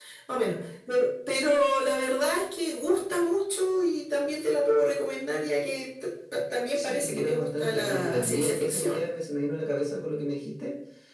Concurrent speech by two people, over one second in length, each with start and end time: 6.8-9.1

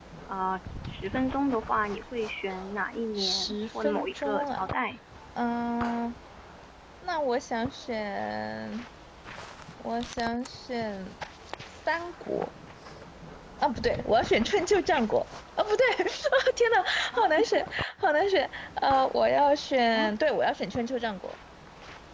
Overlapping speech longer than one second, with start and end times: 3.2-4.7

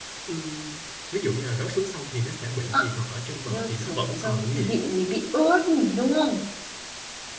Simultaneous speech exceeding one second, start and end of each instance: 3.5-4.7

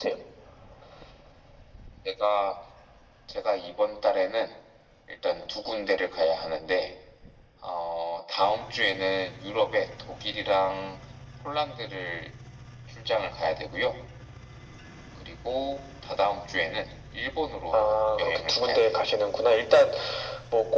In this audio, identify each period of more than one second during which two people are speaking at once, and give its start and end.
17.7-19.0

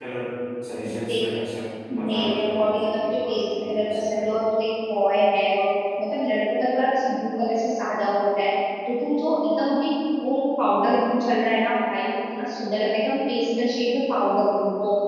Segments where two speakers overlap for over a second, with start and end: 2.0-4.3

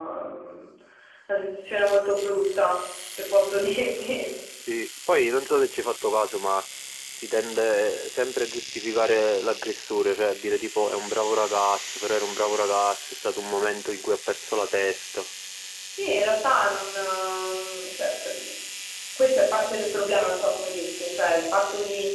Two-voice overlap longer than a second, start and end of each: none

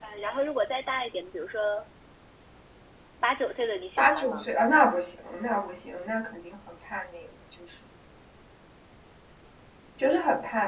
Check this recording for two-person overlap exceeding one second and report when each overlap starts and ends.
none

